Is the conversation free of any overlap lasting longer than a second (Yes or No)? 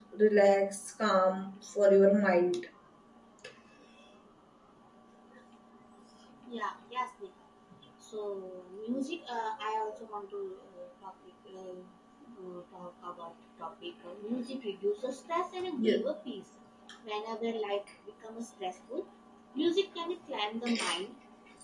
Yes